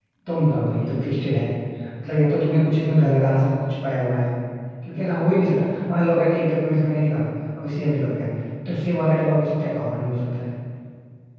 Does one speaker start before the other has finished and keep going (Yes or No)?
No